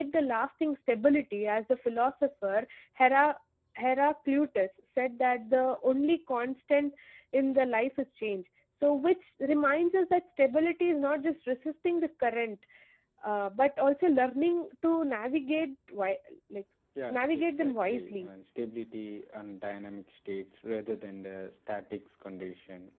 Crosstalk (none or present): present